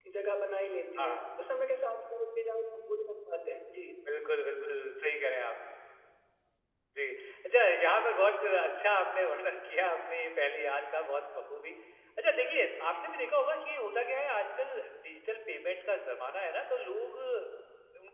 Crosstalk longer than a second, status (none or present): none